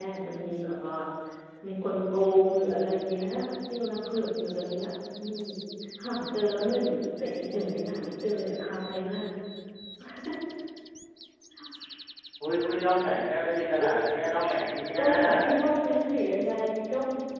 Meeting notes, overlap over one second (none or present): none